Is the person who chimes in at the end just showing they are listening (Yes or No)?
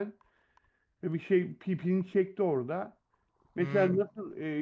Yes